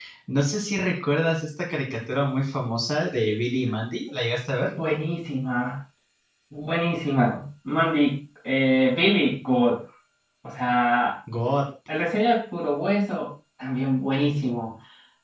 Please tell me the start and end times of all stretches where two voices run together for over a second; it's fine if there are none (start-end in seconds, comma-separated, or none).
none